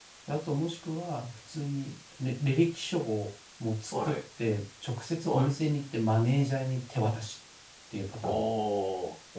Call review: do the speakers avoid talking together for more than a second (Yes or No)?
Yes